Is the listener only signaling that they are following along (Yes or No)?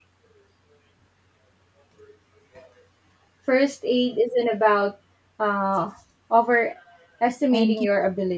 Yes